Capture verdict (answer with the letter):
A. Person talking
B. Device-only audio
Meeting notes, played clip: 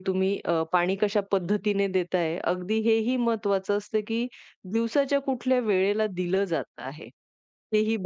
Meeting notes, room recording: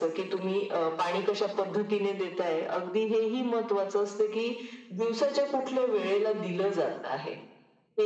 B